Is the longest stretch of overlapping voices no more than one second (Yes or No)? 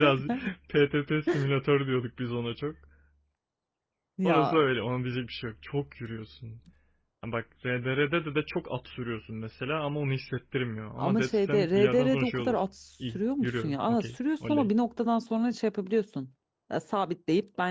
No